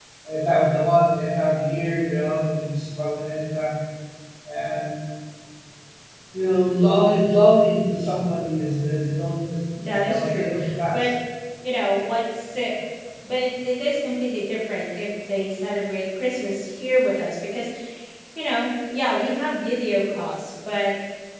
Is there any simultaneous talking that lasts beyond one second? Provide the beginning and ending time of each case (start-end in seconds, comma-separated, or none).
9.8-11.1